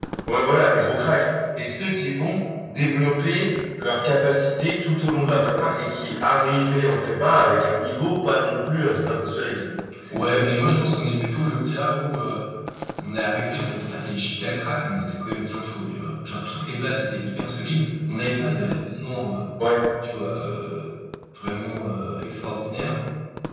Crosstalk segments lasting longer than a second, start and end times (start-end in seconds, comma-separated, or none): none